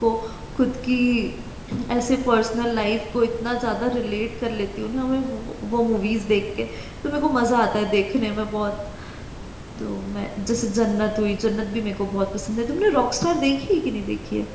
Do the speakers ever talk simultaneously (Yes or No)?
No